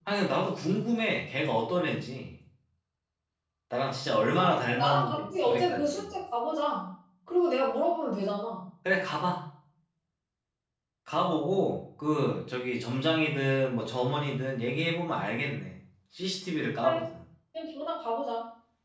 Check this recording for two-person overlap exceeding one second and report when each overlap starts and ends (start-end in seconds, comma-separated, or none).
4.4-6.0